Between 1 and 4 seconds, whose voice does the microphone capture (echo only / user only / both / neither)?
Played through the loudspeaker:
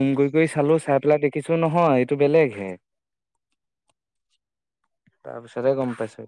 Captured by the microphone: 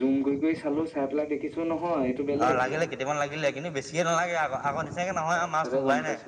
both